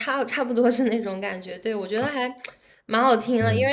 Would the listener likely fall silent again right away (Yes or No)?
Yes